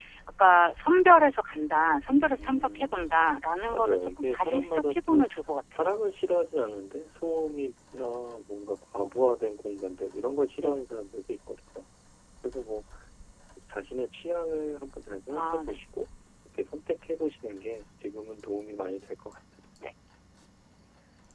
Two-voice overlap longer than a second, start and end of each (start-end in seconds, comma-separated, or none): 3.7-5.2